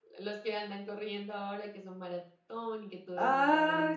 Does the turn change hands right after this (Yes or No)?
Yes